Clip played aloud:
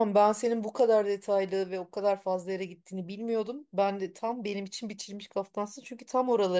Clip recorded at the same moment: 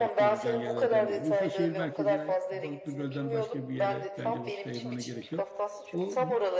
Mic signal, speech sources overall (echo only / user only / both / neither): both